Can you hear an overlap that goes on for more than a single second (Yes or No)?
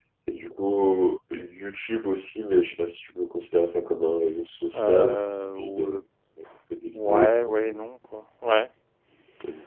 Yes